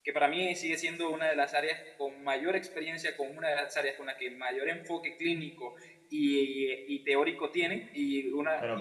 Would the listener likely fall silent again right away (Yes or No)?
Yes